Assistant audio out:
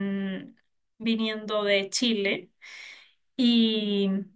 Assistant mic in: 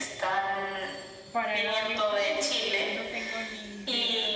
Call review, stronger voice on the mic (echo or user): echo